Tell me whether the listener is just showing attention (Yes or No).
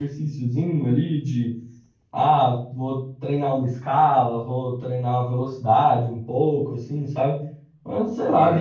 Yes